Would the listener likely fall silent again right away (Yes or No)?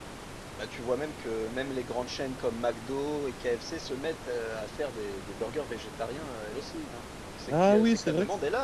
No